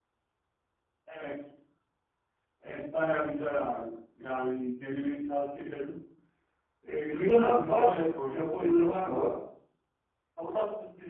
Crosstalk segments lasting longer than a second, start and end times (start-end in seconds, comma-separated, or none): 7.1-9.3